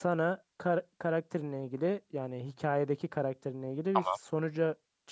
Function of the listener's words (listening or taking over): listening